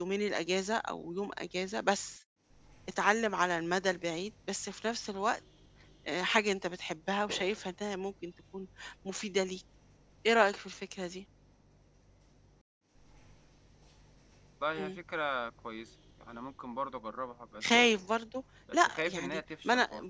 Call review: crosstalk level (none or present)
present